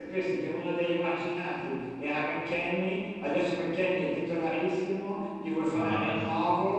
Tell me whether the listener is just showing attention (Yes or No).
Yes